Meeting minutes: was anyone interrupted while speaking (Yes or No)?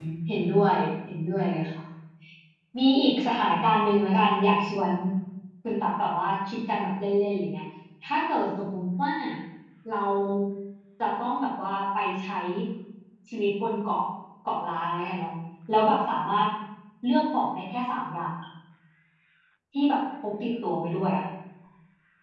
No